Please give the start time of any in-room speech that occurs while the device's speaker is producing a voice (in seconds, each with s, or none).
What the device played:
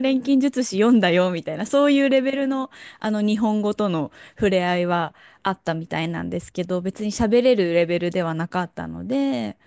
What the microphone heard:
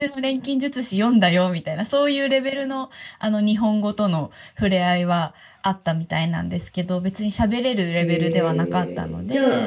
8.0 s